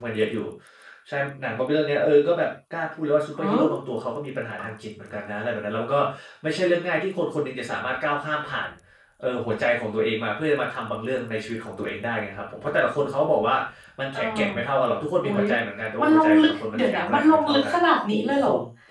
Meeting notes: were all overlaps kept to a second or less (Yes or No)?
No